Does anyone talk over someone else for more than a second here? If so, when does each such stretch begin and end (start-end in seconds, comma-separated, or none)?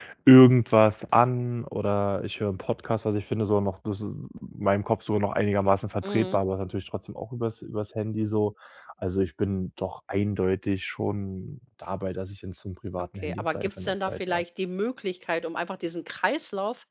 13.0-14.4